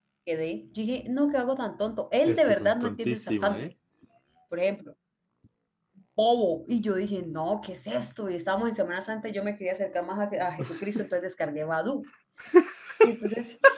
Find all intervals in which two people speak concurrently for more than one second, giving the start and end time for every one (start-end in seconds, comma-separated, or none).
2.2-3.7